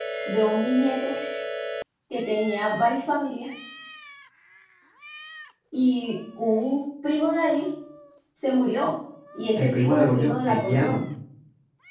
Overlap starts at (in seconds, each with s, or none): 9.6 s